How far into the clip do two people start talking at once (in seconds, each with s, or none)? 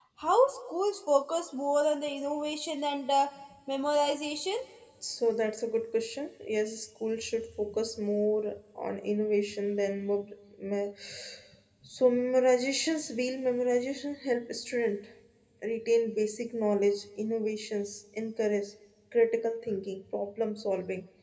none